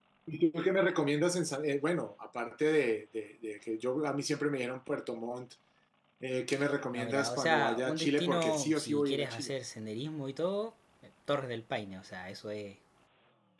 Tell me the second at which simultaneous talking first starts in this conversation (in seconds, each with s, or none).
6.9 s